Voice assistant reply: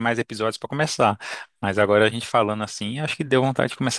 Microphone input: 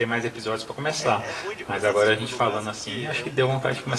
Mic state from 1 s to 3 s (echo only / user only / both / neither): both